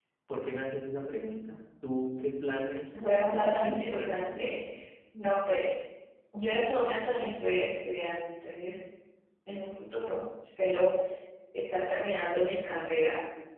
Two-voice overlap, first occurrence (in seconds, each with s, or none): 2.9 s